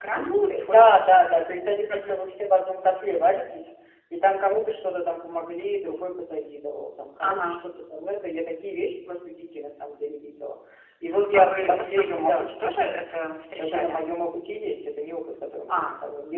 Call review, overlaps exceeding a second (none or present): present